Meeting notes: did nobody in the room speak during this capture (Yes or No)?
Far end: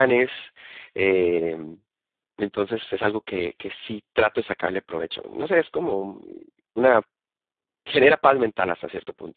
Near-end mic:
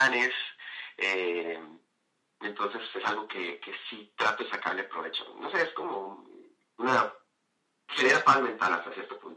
Yes